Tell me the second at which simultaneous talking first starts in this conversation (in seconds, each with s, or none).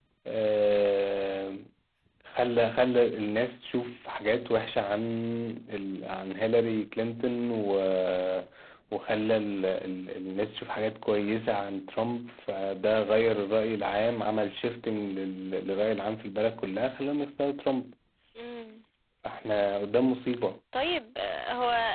none